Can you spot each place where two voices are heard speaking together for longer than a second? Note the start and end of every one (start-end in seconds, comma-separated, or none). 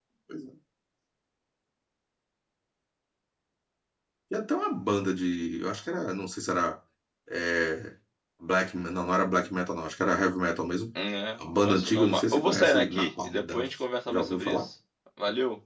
11.4-13.6